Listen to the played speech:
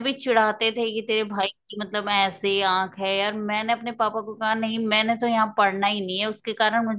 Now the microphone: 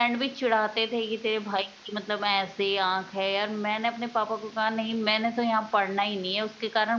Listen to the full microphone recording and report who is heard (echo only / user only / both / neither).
echo only